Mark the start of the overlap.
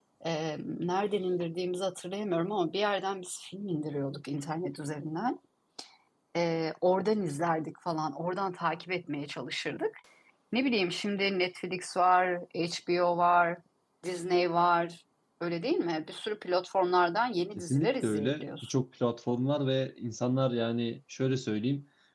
18 s

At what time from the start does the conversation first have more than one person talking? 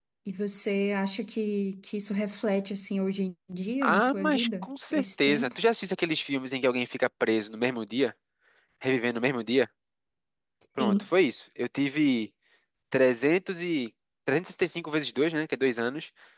4 s

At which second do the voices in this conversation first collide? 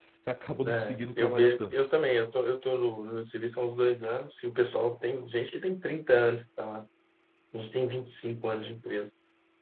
1 s

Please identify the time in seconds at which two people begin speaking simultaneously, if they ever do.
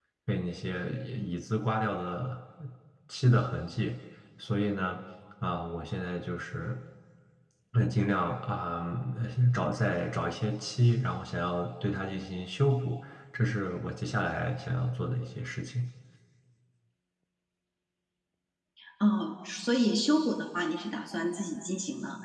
none

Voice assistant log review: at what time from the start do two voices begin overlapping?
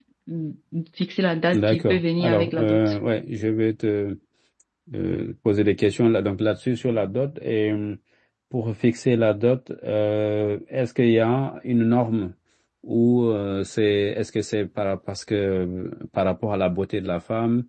2 s

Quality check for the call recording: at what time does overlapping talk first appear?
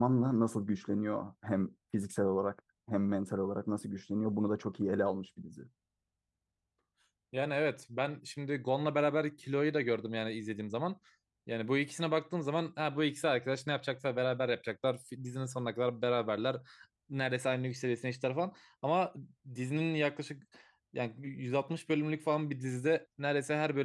none

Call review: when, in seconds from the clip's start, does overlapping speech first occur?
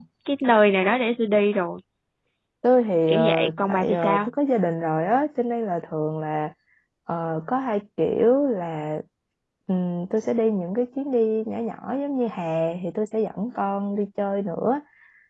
3 s

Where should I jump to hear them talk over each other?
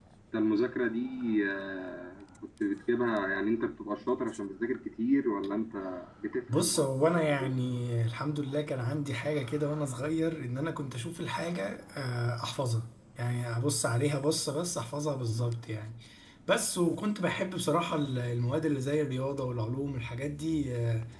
7 s

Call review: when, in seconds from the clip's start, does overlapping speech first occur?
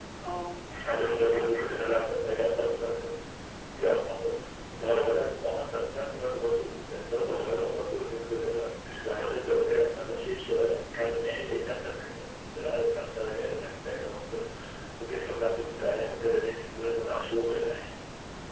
1 s

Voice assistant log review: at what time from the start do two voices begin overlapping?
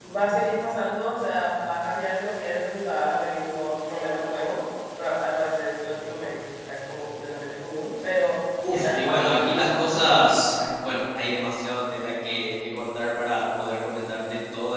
9 s

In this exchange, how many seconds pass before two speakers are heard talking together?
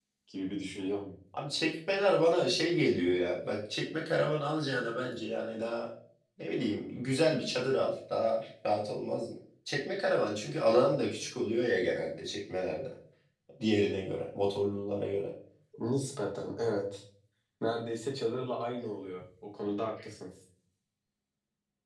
none

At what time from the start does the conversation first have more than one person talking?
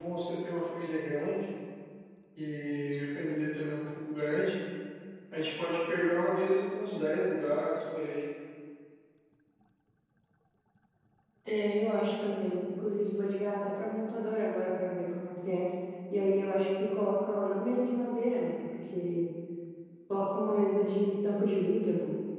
none

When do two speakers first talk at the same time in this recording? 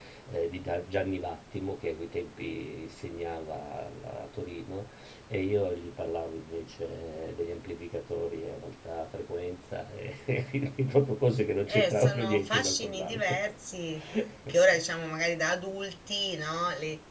12 s

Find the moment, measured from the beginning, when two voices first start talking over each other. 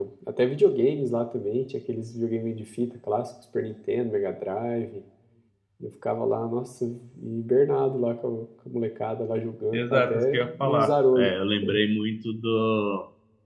10 s

